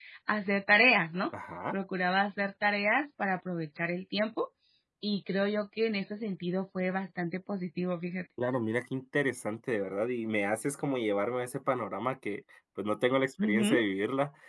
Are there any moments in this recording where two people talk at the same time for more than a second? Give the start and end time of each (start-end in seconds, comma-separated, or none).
none